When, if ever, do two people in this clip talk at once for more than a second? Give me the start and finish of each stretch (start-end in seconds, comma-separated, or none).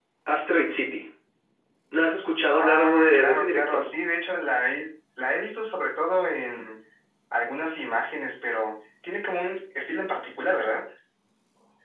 2.6-3.8